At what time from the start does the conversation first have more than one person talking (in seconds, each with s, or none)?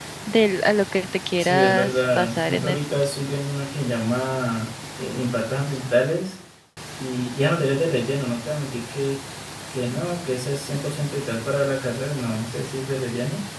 1.4 s